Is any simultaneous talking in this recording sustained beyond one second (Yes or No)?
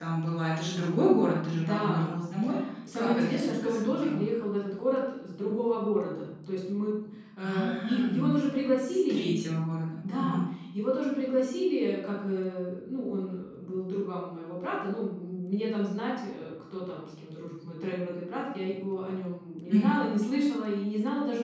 Yes